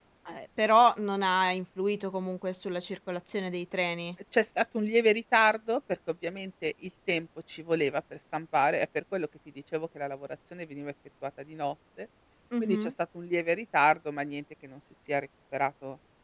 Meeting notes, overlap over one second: none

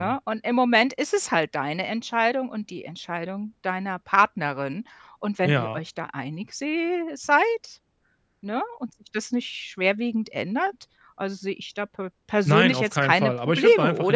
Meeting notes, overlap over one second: present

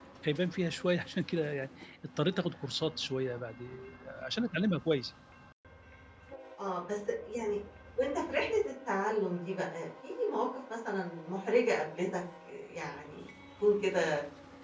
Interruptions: none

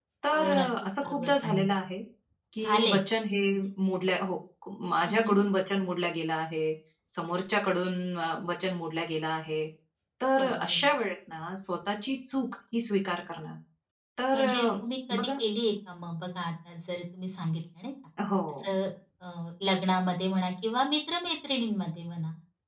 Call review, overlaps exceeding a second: present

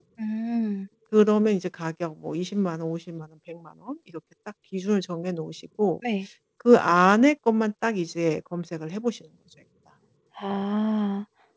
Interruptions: none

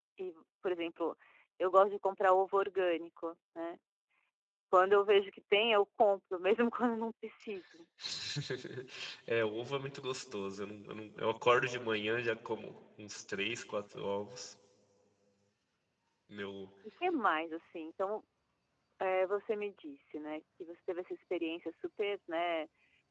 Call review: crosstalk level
none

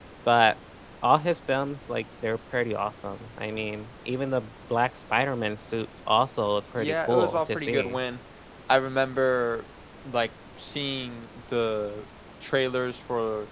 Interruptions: present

